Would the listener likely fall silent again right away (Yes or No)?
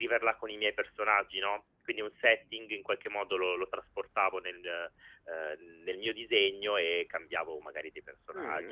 No